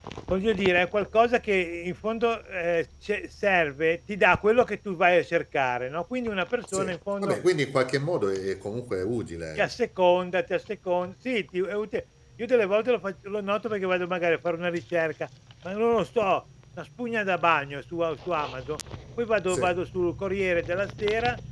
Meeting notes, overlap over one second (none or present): none